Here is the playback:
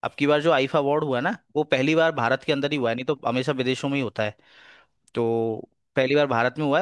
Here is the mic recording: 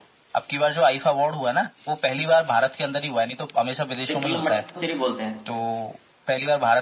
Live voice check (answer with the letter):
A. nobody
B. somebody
B